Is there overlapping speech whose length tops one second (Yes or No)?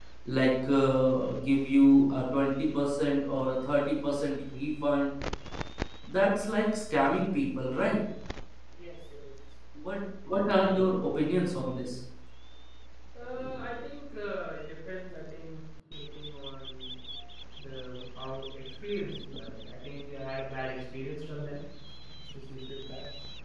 No